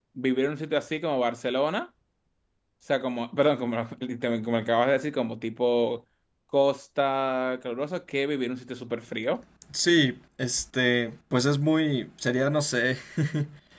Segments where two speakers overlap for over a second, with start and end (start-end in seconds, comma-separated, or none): none